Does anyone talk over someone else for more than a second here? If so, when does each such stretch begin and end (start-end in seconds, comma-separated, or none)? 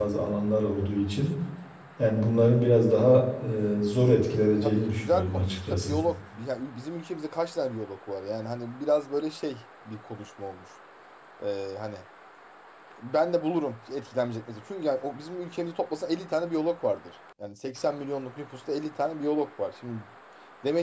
4.6-6.0